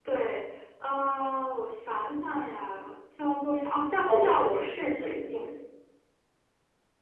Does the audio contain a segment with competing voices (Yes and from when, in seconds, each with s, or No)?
Yes, from 4.1 s